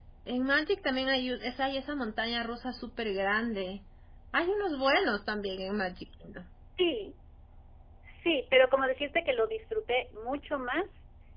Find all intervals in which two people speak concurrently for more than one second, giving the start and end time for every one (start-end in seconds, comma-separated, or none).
none